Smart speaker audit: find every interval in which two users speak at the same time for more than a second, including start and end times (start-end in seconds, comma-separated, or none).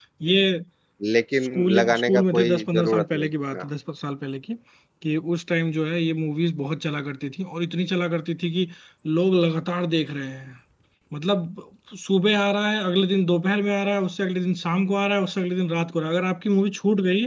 1.5-3.6